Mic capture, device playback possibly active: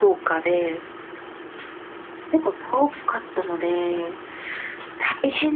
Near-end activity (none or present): present